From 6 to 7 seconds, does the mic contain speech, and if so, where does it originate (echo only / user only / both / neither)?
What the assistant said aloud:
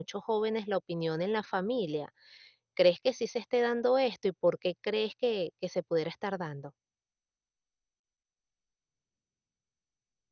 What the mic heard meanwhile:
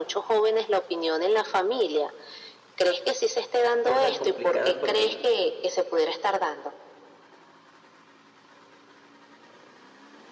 echo only